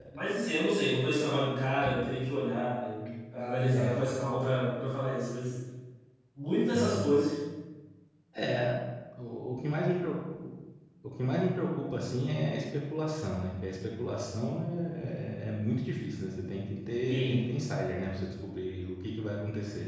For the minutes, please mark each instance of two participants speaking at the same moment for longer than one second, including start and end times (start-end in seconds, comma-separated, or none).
none